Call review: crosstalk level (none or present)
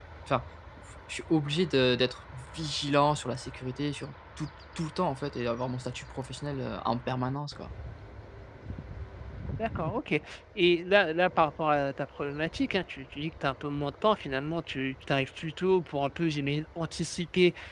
none